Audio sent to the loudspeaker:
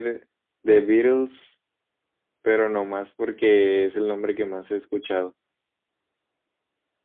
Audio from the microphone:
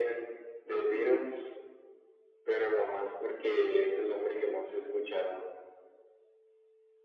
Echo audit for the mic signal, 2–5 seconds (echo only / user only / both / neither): echo only